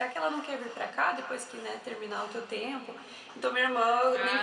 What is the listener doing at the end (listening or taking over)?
listening